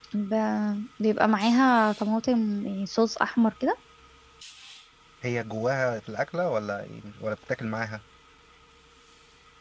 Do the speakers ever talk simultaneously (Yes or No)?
No